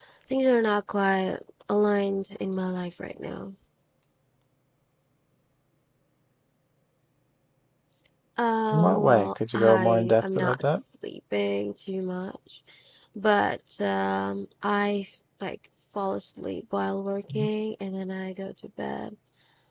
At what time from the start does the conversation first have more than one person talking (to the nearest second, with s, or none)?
9 s